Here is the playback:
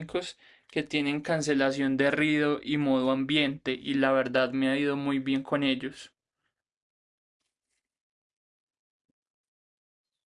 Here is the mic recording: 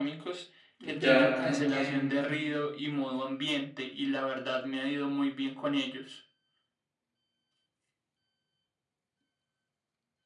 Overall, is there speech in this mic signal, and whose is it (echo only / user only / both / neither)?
both